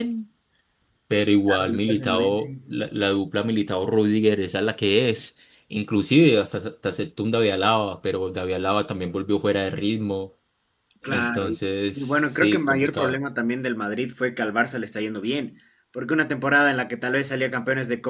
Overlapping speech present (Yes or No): Yes